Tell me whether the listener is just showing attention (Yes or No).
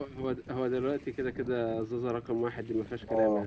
No